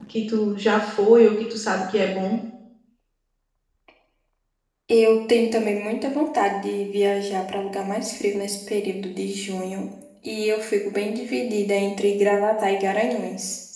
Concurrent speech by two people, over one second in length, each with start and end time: none

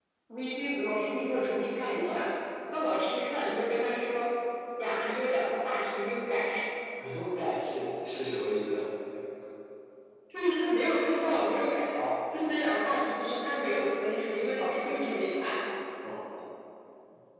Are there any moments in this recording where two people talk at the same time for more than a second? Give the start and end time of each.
none

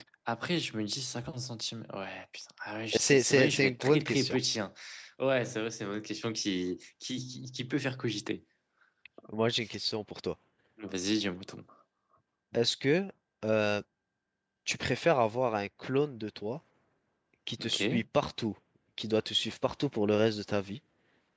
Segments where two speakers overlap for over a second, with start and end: 3.0-4.4

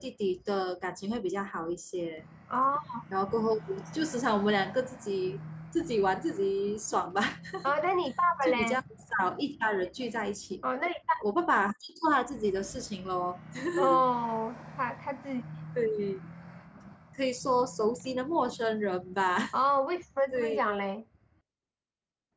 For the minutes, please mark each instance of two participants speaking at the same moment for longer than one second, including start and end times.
none

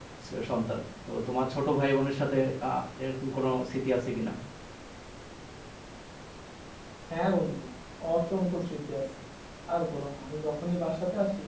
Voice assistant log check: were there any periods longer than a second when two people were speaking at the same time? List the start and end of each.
none

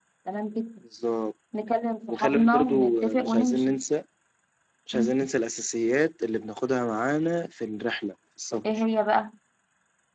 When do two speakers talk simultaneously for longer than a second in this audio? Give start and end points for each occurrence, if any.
2.1-3.7

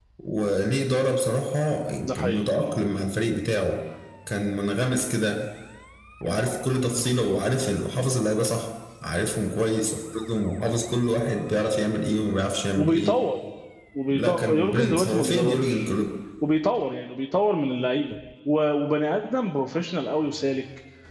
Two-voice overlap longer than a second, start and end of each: 14.1-15.9

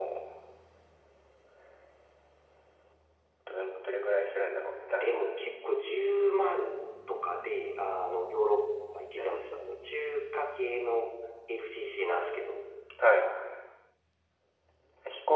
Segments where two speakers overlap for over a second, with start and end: none

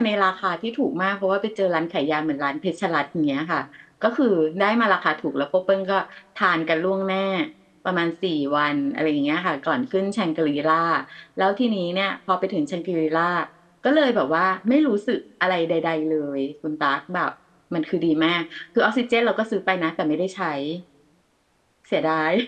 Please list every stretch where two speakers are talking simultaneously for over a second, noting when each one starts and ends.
none

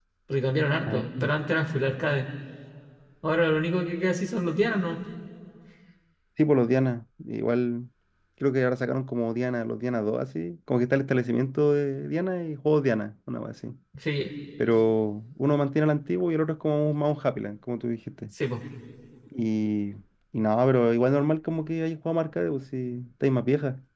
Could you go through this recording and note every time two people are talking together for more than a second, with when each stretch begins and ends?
none

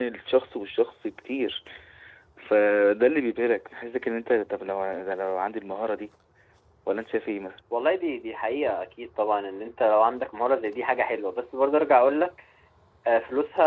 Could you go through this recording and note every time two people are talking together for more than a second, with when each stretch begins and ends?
none

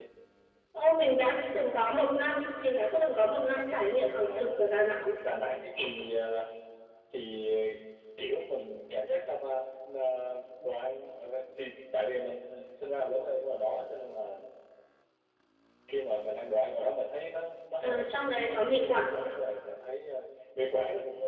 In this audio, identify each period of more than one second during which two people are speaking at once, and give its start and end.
17.8-19.1

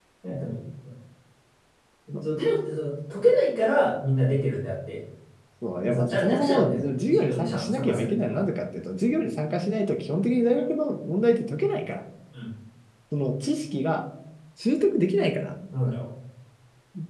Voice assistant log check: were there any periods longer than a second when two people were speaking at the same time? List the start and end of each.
5.8-8.4

